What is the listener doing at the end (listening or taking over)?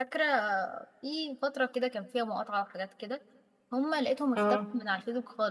listening